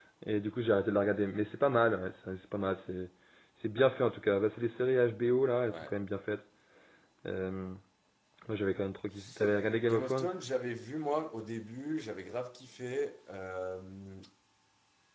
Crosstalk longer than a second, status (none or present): none